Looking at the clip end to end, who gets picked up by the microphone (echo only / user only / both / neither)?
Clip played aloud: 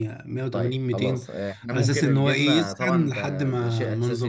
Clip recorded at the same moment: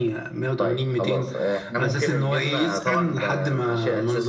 echo only